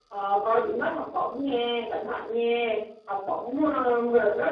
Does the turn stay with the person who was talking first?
Yes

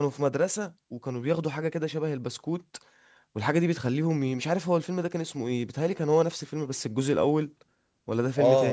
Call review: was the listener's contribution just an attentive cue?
No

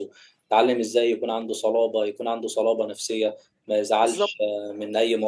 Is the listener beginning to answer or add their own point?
No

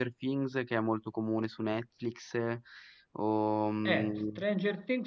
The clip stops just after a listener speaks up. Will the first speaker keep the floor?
No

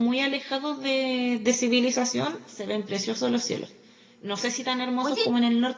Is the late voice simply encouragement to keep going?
Yes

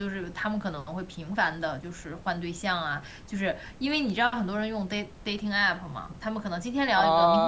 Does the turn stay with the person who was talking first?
No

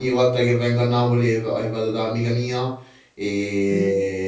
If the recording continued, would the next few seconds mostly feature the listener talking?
No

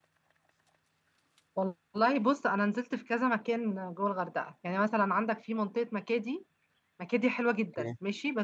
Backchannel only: Yes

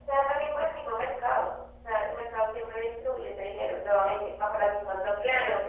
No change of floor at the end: No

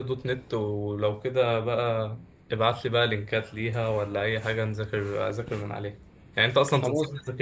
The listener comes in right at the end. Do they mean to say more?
No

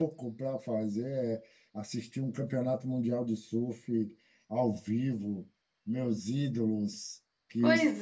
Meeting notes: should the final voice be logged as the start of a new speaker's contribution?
No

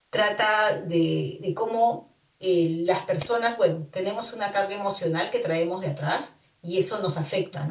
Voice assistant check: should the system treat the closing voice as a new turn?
No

